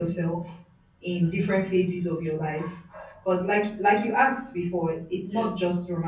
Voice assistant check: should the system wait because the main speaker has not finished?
Yes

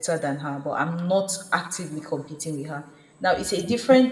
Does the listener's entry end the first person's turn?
No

